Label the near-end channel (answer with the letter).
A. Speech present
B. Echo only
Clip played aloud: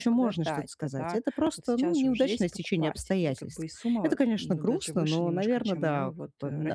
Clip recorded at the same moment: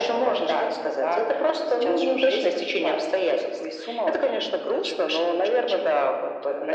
B